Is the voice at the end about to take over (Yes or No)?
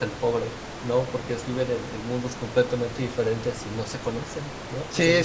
Yes